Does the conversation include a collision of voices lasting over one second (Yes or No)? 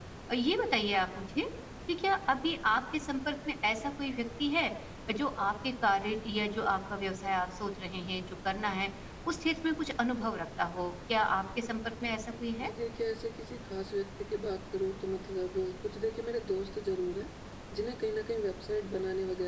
No